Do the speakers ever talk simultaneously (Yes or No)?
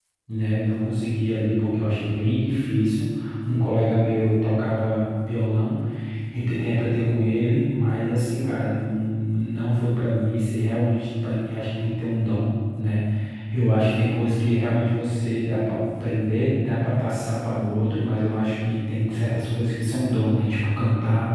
No